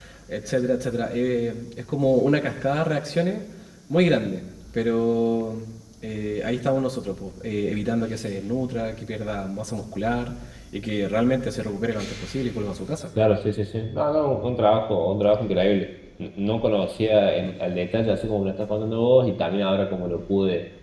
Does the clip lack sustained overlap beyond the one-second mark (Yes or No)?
Yes